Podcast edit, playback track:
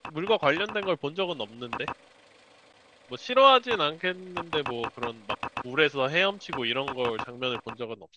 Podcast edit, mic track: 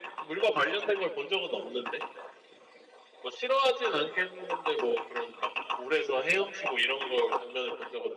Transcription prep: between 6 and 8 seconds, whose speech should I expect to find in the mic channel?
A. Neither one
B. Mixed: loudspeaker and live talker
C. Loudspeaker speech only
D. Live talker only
C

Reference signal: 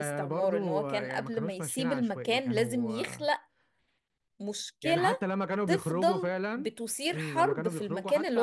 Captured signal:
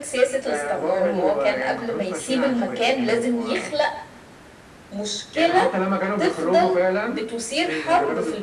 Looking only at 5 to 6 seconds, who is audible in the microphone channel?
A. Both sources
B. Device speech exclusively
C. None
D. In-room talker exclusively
B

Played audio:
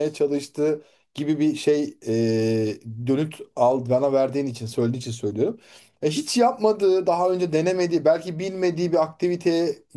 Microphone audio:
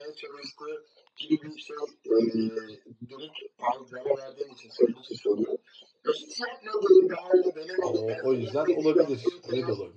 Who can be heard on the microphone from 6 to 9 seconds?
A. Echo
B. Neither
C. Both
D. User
C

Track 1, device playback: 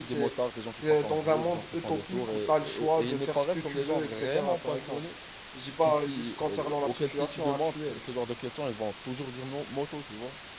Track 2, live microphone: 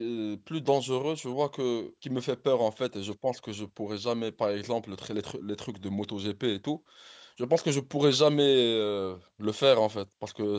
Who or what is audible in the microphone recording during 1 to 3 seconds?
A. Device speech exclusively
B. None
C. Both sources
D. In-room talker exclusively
D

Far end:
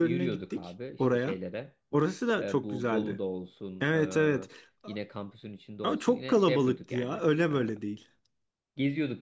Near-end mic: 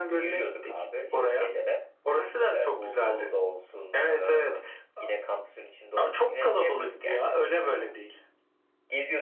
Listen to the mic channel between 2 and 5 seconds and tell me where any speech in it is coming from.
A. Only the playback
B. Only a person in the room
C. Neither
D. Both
A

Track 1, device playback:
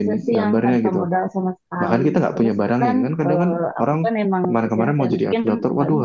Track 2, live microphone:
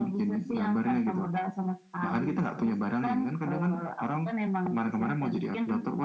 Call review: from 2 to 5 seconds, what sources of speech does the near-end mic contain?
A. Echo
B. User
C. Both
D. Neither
A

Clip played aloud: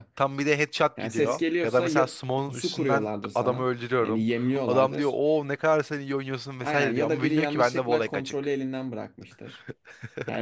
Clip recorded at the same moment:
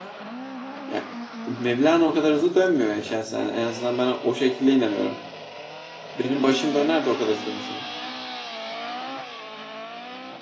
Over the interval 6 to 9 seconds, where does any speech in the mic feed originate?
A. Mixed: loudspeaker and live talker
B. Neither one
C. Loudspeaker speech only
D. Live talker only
D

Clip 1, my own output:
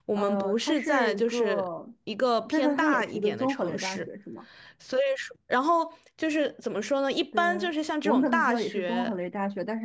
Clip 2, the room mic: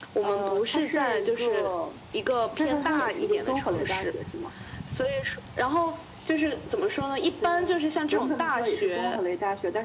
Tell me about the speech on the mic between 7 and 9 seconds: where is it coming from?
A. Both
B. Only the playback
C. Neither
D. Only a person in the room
B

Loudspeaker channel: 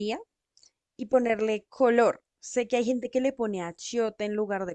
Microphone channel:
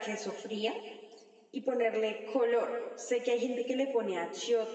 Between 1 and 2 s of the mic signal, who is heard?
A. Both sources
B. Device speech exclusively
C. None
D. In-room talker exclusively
B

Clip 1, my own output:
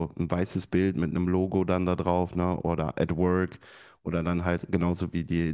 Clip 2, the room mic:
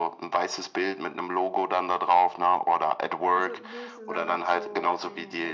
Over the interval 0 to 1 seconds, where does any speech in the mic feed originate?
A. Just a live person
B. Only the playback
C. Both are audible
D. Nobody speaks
B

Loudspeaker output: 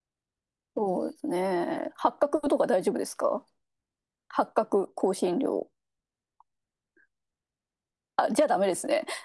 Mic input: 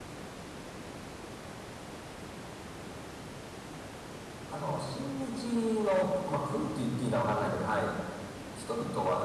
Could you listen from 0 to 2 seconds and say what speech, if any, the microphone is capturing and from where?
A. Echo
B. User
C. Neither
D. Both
C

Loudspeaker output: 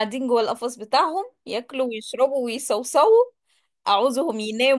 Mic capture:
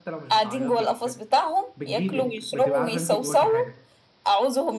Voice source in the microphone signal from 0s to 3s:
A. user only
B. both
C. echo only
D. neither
B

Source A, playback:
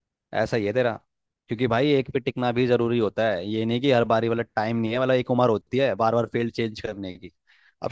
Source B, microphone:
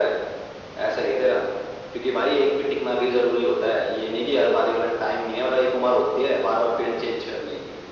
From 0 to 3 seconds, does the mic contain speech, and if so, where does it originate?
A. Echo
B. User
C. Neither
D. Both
A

